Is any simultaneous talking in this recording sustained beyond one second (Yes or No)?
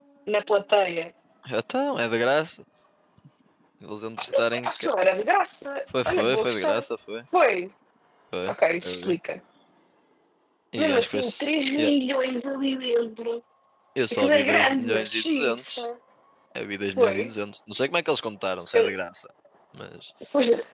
Yes